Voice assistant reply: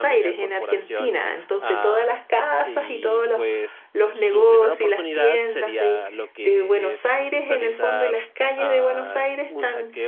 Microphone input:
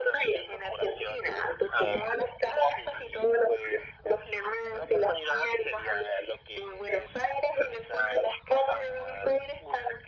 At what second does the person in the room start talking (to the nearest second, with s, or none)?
none